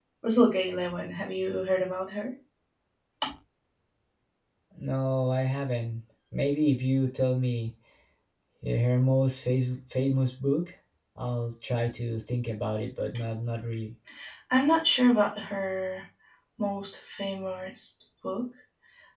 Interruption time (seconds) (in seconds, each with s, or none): none